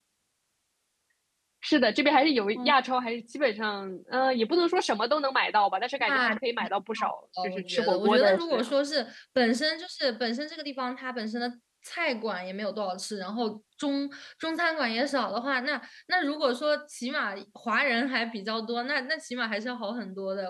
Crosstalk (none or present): present